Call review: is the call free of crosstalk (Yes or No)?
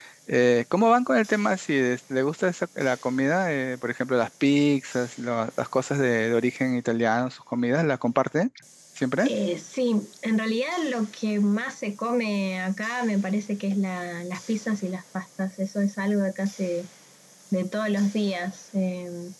Yes